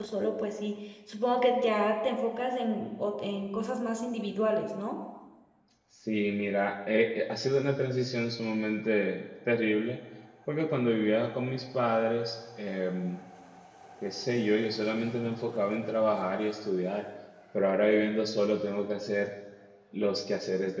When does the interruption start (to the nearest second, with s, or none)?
none